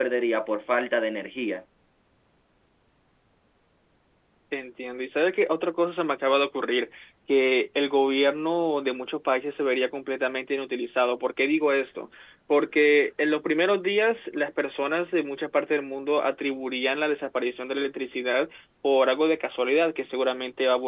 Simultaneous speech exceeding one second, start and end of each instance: none

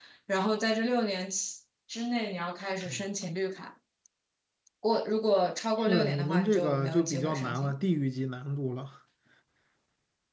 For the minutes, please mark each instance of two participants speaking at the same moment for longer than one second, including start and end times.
5.8-7.8

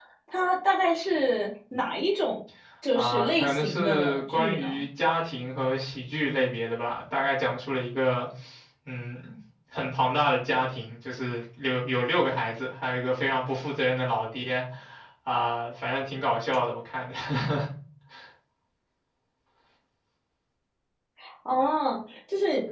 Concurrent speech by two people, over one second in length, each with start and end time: 3.0-4.7

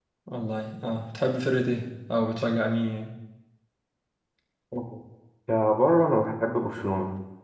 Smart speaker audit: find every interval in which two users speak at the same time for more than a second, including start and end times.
none

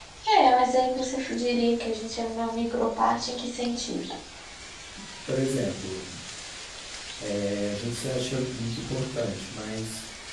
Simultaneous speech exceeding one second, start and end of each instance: none

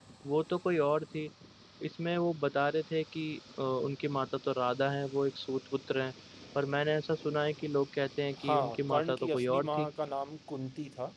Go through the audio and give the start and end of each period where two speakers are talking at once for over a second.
8.4-9.9

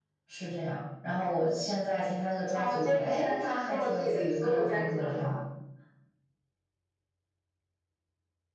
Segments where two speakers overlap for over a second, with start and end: 2.5-5.4

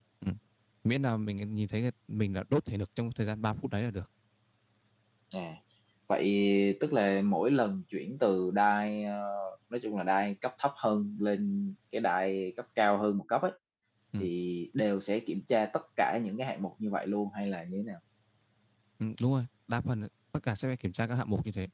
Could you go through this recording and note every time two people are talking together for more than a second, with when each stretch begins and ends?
none

